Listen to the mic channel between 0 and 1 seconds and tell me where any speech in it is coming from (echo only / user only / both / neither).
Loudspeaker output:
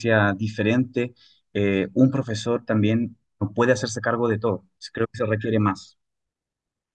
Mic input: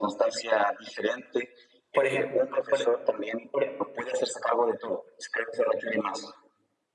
echo only